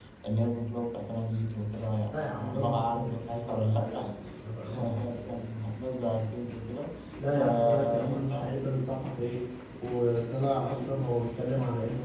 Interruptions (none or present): present